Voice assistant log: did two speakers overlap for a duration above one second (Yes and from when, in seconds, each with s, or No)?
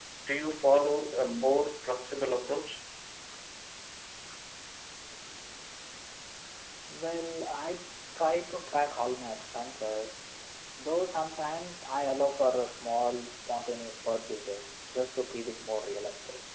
No